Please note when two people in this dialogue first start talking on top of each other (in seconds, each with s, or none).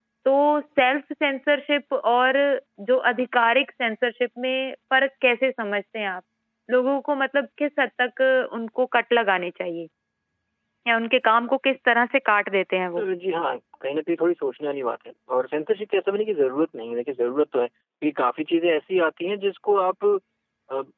none